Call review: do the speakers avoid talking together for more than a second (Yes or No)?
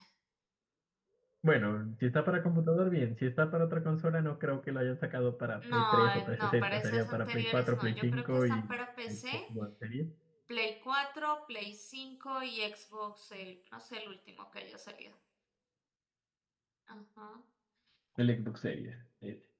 No